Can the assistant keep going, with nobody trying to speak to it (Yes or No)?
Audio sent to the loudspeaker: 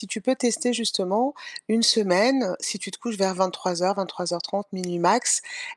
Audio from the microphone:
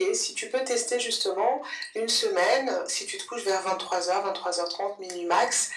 Yes